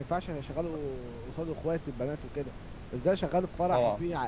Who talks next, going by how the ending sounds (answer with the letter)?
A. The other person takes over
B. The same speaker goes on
B